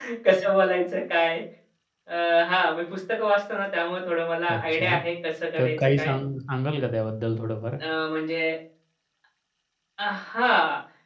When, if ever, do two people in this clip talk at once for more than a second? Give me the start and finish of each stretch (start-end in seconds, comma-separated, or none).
none